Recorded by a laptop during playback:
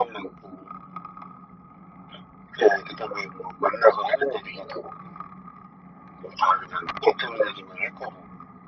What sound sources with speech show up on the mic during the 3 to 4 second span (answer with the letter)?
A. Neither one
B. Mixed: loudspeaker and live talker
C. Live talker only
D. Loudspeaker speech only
D